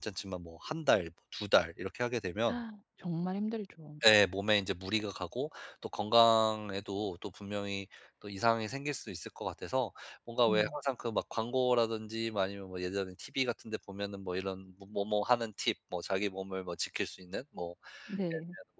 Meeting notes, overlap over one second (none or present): none